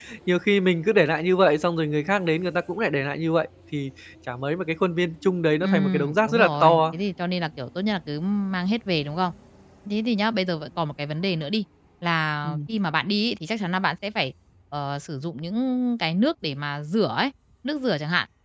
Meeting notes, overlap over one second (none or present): present